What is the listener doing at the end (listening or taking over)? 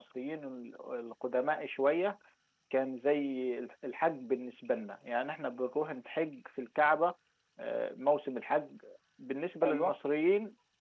listening